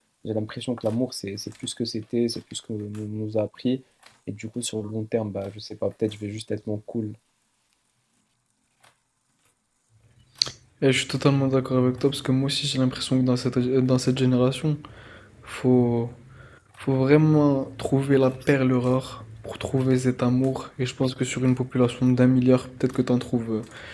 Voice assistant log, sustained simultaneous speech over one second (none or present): none